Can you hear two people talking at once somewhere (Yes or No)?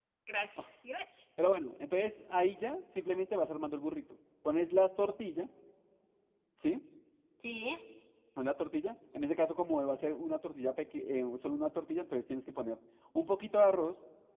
No